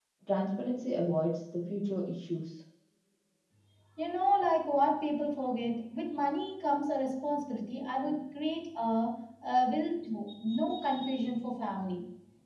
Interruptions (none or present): none